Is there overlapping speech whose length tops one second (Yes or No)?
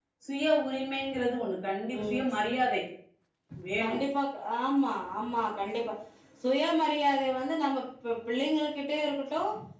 No